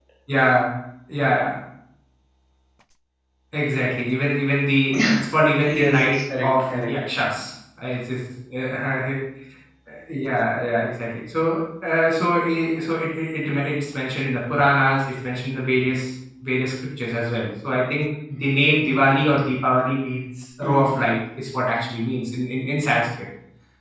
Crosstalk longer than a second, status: present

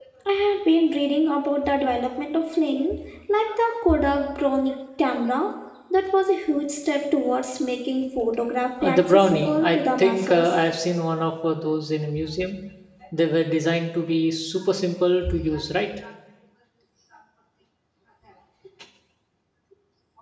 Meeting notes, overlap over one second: present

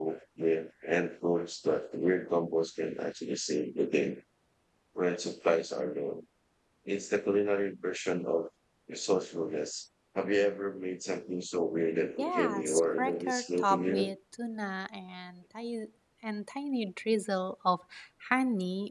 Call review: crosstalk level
present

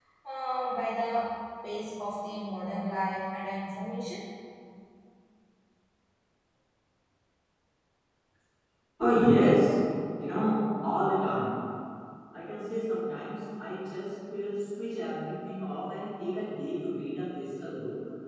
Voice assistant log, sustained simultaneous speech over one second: none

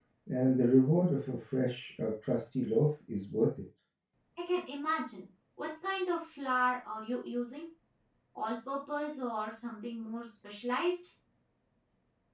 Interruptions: none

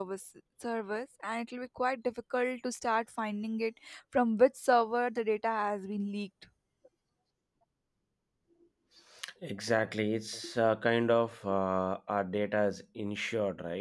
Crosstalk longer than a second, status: none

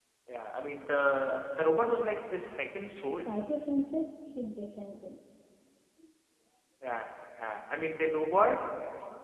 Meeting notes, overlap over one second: none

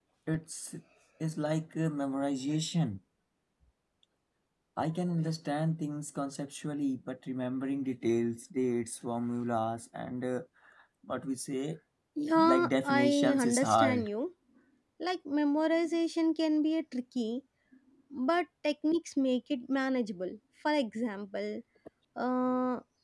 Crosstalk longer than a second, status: present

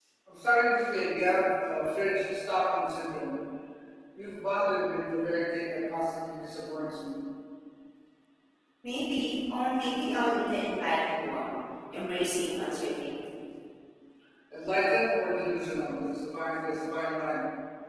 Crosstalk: none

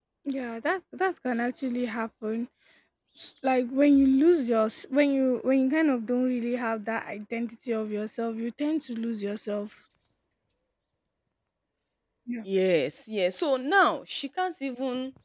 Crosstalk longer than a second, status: none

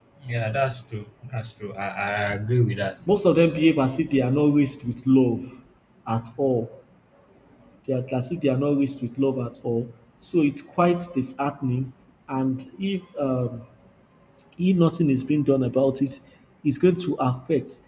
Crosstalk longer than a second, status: none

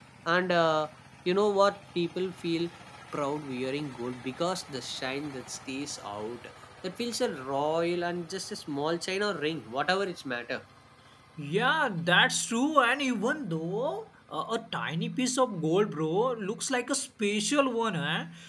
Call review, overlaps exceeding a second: none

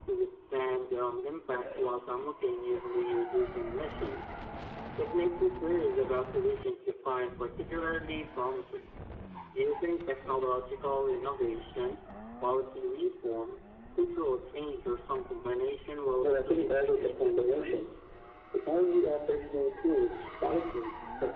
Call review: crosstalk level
present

